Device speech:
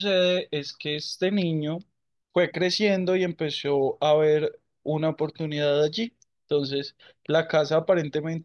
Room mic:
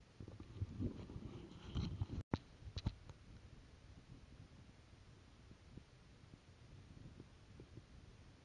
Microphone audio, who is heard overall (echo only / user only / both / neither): neither